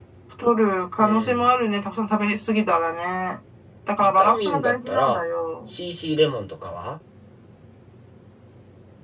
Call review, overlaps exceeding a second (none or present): present